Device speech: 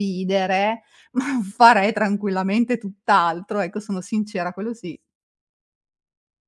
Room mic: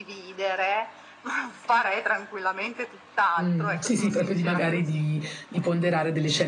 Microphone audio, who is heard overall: both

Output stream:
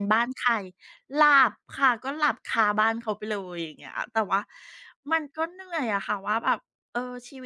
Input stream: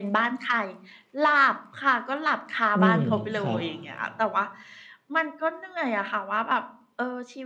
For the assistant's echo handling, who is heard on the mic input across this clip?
both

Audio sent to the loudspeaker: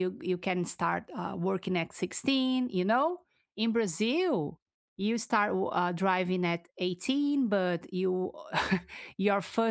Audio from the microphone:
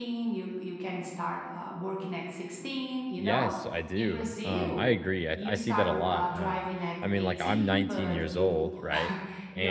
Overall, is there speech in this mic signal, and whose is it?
both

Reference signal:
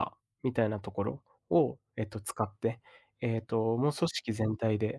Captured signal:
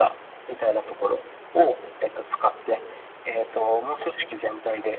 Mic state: echo only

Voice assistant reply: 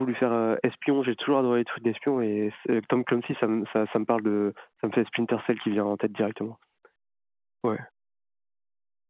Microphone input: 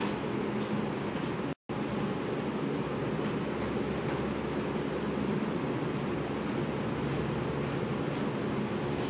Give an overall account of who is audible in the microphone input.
neither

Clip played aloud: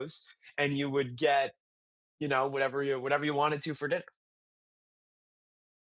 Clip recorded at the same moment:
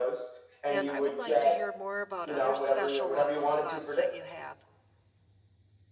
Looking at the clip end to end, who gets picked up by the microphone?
both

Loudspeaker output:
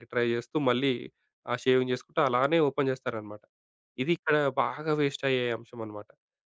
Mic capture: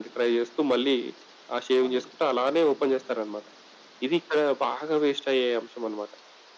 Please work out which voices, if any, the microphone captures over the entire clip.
both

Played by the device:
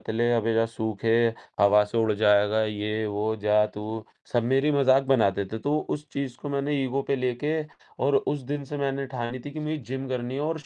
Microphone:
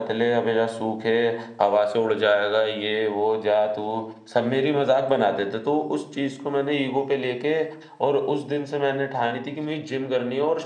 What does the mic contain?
echo only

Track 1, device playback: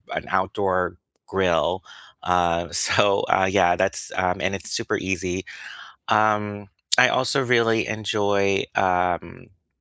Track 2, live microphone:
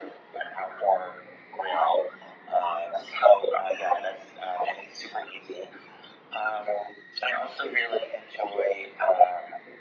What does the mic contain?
echo only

